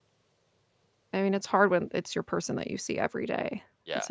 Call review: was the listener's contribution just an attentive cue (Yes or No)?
No